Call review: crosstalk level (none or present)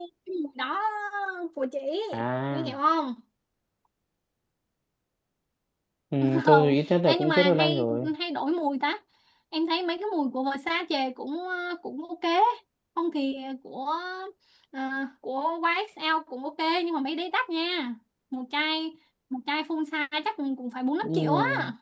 present